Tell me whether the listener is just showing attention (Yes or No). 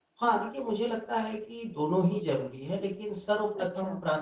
Yes